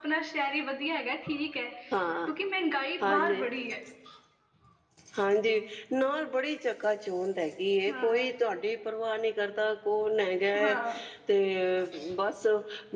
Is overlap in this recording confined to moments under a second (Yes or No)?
Yes